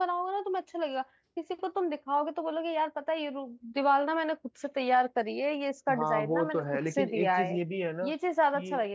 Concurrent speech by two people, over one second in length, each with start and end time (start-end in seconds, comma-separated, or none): 6.0-7.5